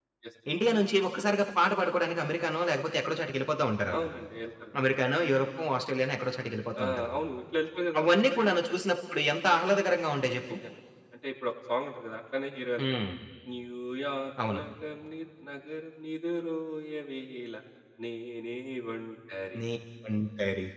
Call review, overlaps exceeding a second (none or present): none